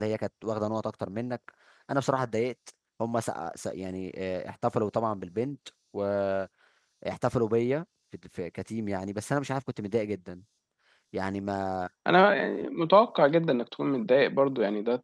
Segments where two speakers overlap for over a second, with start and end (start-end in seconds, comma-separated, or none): none